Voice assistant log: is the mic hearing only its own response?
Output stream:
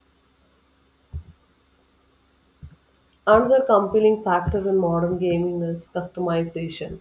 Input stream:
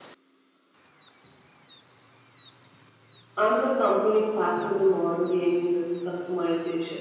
Yes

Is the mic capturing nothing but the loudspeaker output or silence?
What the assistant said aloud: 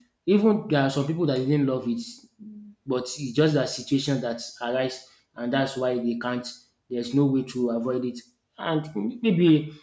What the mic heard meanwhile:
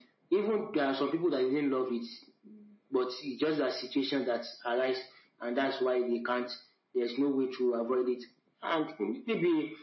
Yes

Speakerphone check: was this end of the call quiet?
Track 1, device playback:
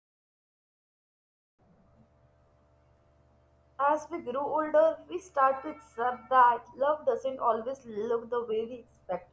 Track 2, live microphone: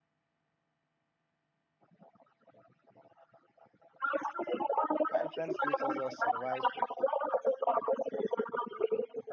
No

